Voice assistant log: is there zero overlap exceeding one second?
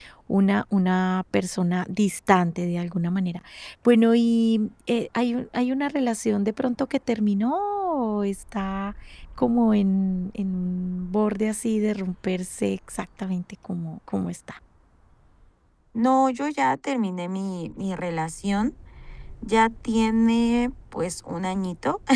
Yes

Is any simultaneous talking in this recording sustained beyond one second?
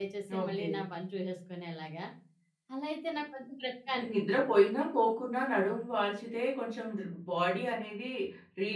No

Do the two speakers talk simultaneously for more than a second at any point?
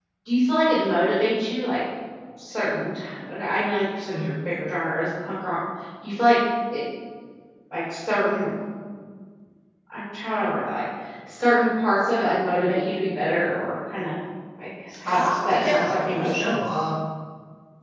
Yes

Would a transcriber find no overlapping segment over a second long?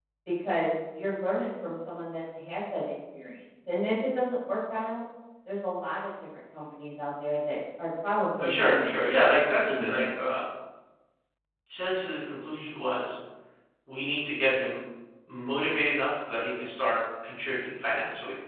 No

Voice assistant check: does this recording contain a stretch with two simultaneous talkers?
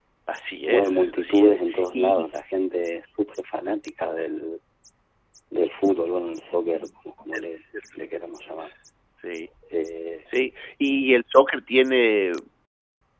Yes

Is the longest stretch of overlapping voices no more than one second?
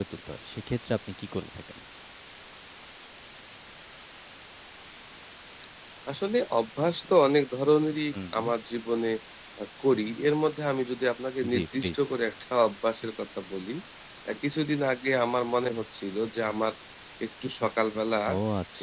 Yes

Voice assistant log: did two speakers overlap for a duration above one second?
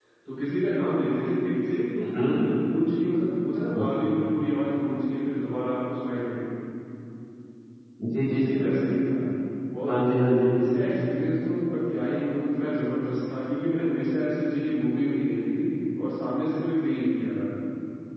No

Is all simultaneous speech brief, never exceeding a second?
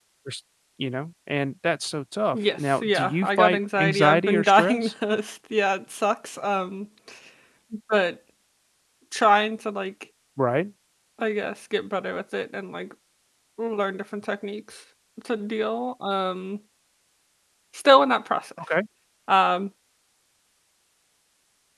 No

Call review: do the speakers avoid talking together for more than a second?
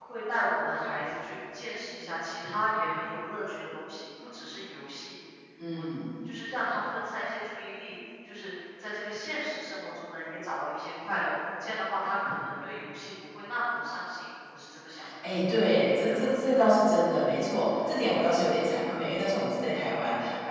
Yes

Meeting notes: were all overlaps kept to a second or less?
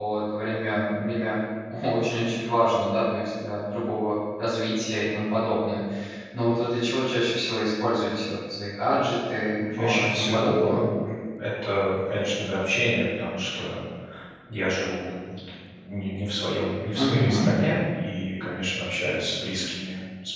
No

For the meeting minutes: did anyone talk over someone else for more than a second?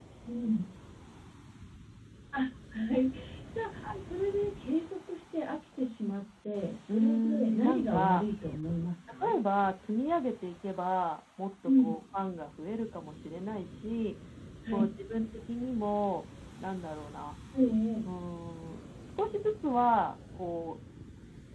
Yes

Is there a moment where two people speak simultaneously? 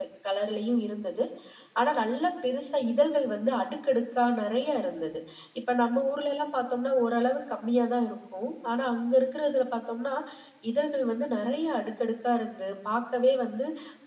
No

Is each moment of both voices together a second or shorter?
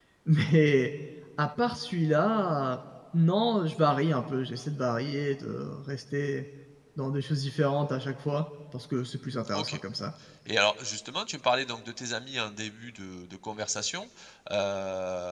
Yes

